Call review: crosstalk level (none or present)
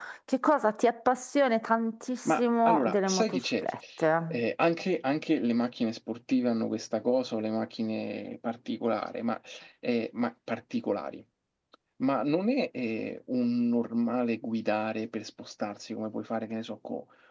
present